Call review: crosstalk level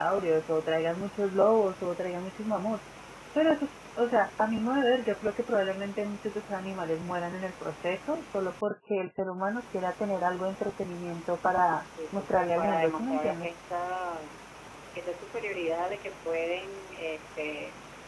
present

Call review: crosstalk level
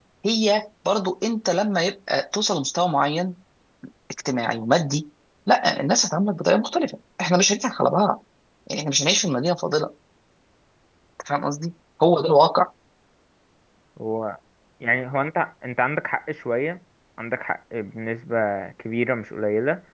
none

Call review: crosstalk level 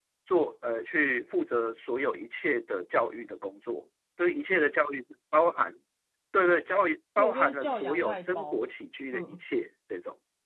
present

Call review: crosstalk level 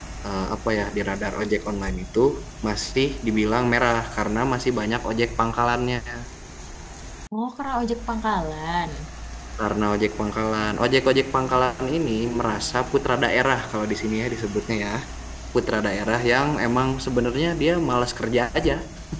none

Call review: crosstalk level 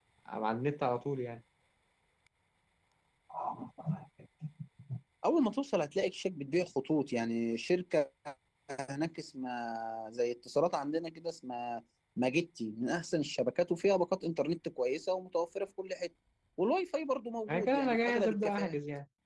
present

